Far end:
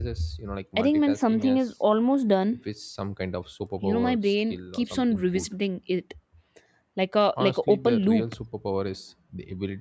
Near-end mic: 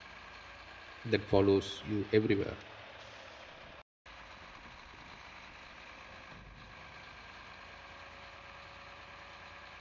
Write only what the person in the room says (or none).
that follows you everywhere